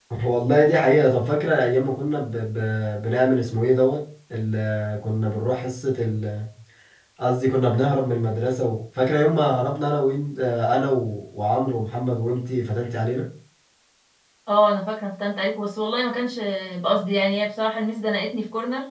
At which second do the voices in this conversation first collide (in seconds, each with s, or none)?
none